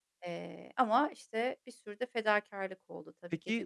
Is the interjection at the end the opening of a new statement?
Yes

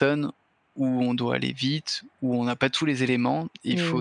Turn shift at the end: No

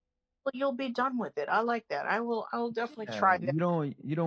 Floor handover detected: Yes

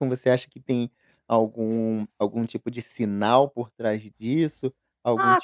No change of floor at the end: No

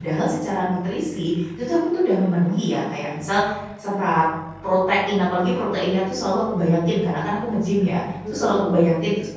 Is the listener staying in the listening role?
Yes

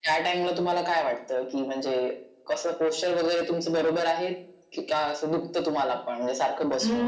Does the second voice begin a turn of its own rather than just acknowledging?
Yes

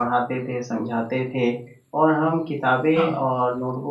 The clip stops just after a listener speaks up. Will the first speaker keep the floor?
Yes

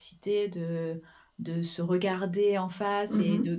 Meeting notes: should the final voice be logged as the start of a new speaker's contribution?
No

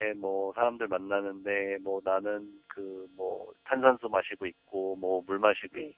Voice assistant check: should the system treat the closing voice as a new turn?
No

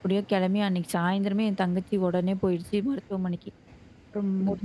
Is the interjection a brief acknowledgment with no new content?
Yes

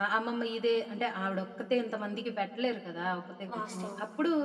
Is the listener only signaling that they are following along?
Yes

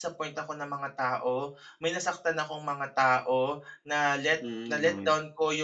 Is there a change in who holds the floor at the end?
No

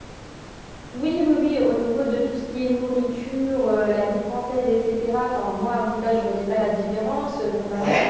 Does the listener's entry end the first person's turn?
No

